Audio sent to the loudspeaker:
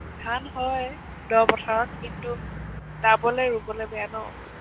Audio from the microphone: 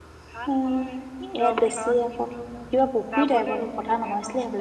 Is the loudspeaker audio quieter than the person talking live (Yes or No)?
Yes